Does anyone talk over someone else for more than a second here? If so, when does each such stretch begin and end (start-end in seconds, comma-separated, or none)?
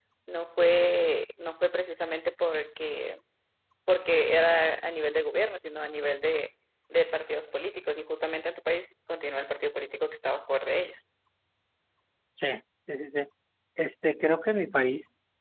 none